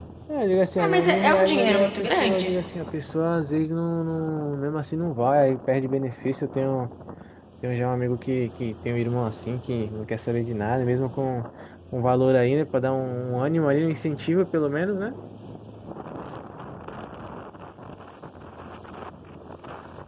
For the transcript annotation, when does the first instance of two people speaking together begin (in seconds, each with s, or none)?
0.8 s